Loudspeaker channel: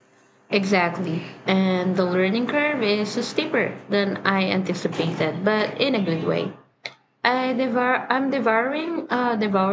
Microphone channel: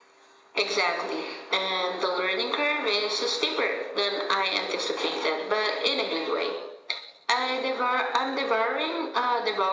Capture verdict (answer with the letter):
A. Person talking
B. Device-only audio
B